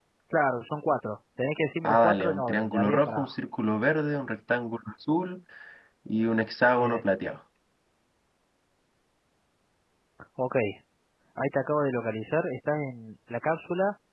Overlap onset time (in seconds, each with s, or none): 1.8 s